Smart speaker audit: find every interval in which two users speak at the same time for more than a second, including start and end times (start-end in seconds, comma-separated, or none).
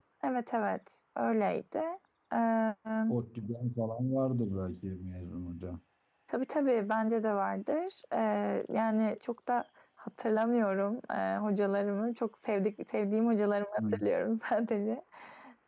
none